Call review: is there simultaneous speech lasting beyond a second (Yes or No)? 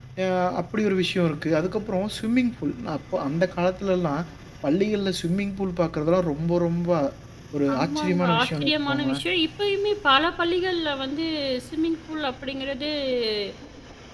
Yes